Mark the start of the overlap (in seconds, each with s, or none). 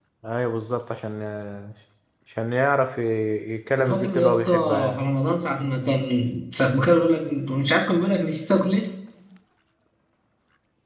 3.8 s